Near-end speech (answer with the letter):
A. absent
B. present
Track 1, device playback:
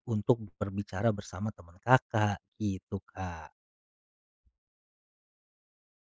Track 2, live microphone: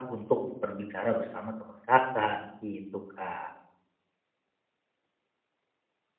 A